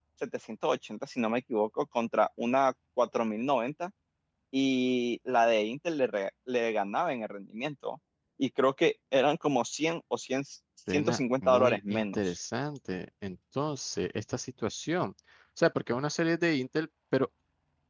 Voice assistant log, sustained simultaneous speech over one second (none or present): present